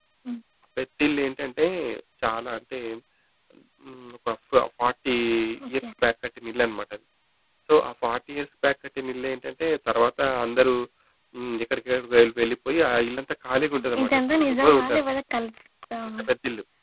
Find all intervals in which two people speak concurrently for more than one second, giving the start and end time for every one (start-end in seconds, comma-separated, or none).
13.8-15.0